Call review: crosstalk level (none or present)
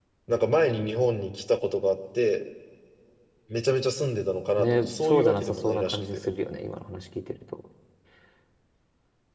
present